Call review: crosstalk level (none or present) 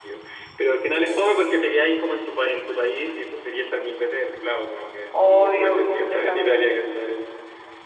present